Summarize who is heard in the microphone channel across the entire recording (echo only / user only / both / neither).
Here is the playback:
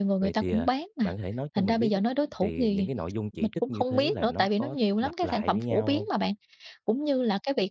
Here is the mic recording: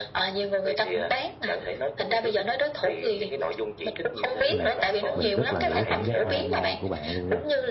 both